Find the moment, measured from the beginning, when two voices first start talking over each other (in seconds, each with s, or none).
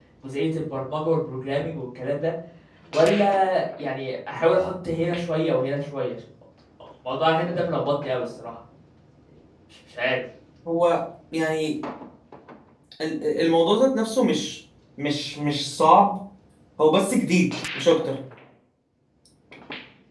none